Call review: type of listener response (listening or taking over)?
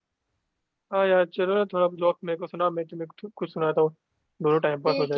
taking over